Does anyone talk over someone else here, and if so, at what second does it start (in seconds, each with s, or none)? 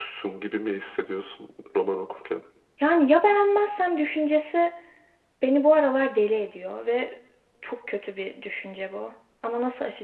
none